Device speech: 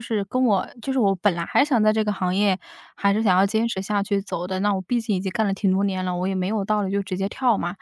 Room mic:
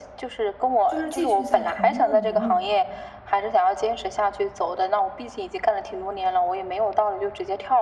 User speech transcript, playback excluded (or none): 就是继续在同一个领域